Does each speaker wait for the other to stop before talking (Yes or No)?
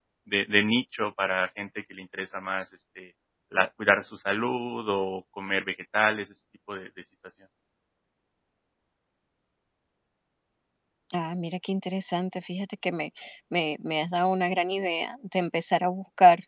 Yes